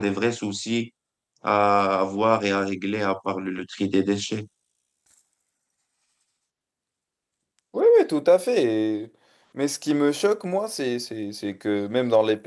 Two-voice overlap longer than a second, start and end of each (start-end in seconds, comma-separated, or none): none